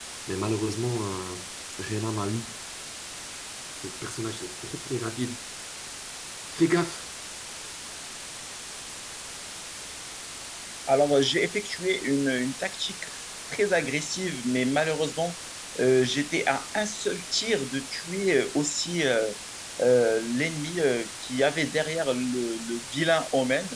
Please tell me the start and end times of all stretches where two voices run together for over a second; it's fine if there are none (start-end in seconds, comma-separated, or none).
none